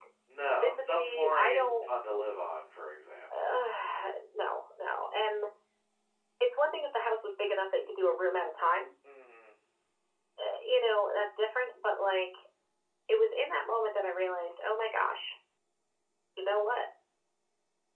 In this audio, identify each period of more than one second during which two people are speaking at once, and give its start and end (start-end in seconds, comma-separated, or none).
0.6-1.8